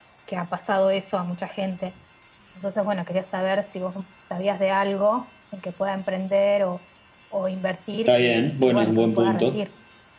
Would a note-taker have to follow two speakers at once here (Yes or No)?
Yes